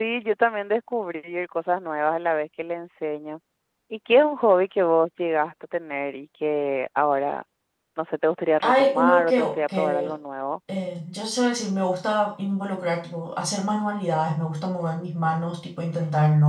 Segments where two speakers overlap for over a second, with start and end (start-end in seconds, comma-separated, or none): 8.6-10.1